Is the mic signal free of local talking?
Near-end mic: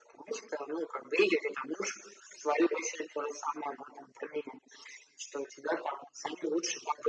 Yes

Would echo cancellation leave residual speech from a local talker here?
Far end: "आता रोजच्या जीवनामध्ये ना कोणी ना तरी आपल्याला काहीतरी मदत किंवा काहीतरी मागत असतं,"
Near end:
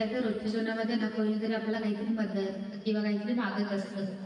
No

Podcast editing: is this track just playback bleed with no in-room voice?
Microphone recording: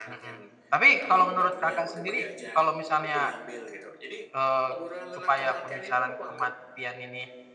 No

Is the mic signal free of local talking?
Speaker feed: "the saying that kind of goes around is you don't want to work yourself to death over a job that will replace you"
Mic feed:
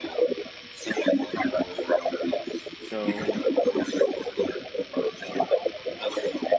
No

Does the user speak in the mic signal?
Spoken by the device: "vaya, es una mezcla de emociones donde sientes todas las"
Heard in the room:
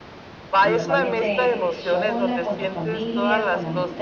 Yes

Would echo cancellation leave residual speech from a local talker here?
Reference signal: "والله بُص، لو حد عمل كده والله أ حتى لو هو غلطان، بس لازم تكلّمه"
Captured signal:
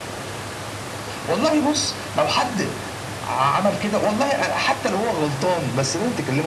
No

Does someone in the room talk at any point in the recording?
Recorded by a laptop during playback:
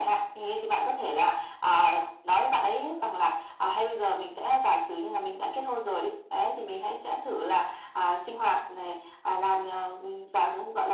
No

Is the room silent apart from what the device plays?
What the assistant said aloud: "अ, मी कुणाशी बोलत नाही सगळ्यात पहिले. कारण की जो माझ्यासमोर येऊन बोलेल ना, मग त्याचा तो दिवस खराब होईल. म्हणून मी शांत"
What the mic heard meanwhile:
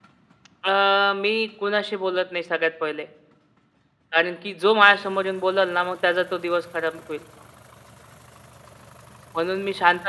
Yes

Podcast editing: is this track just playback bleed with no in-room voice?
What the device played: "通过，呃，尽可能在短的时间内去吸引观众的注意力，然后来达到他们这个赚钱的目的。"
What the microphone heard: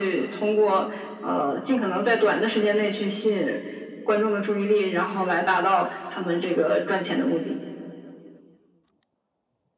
Yes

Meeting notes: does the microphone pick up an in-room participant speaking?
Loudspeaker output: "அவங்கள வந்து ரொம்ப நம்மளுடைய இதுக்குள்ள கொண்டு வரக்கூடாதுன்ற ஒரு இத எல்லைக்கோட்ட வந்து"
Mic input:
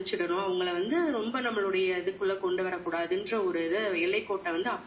No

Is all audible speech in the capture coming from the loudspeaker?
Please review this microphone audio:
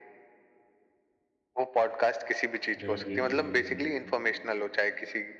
No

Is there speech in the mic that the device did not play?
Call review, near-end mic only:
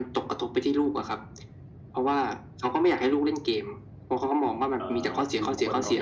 Yes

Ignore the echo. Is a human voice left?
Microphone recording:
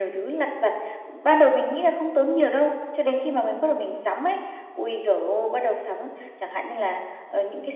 No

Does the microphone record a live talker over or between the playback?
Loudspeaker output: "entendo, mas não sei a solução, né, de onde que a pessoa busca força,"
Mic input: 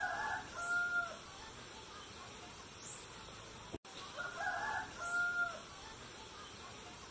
No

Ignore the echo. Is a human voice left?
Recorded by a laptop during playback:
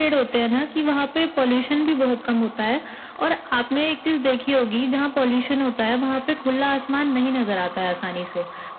No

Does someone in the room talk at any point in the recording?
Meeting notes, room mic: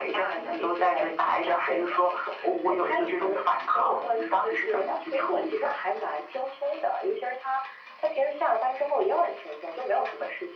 No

